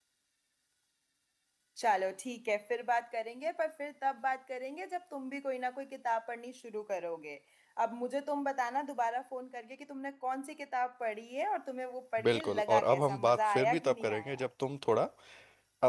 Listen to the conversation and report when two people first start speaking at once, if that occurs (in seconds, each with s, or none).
12.2 s